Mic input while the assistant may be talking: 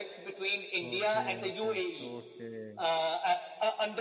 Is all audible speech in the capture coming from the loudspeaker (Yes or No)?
No